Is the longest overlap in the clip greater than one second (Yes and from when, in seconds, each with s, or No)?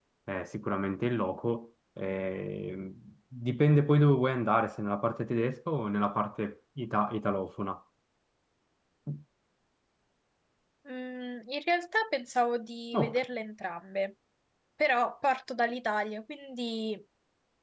No